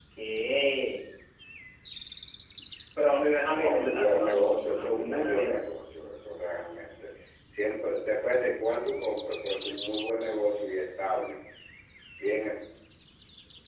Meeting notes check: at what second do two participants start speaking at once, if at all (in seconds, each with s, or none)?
3.5 s